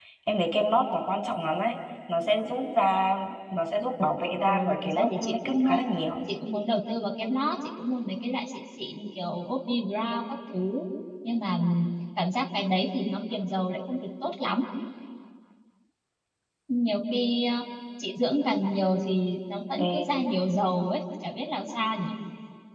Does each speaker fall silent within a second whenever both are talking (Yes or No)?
No